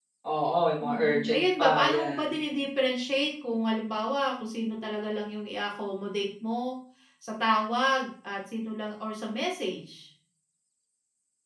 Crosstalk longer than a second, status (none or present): present